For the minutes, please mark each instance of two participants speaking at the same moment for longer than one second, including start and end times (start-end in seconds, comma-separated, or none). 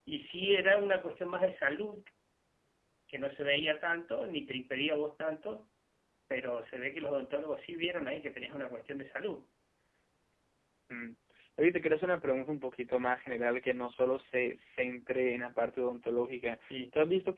none